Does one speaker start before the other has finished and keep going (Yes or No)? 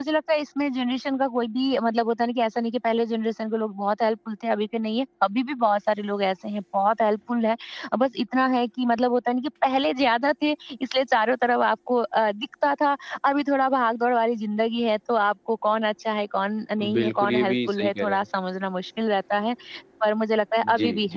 Yes